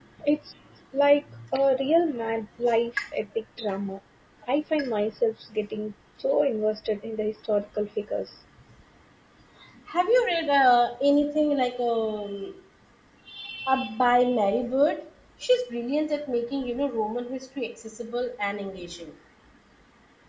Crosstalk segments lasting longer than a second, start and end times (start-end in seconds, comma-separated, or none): none